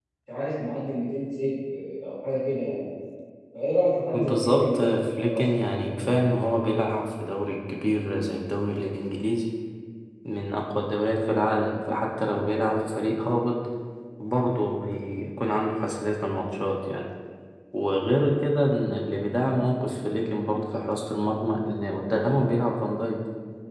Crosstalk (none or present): present